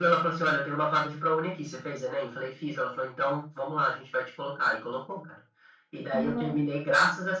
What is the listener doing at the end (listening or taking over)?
listening